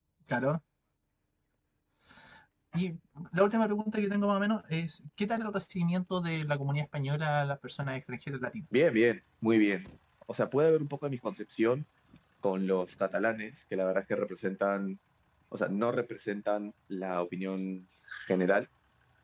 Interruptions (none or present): none